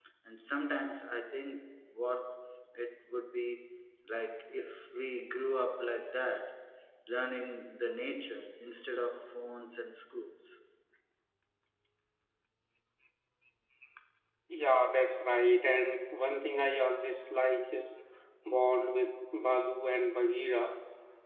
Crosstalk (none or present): none